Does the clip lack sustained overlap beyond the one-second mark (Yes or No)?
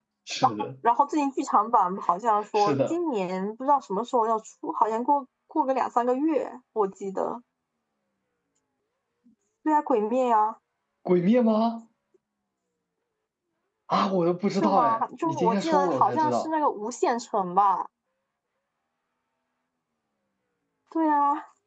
No